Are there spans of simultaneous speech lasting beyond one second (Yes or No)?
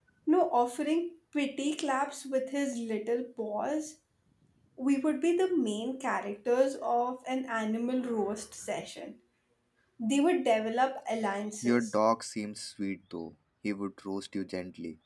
No